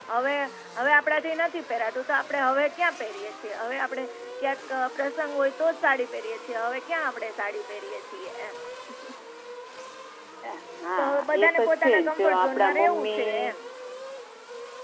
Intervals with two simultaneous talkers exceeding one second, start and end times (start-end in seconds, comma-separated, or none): 11.0-13.4